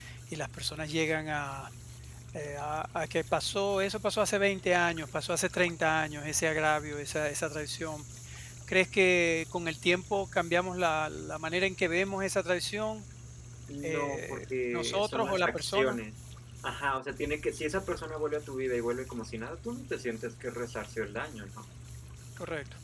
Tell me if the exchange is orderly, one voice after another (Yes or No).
No